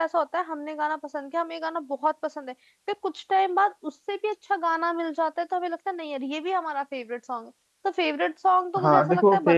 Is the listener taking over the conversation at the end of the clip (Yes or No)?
Yes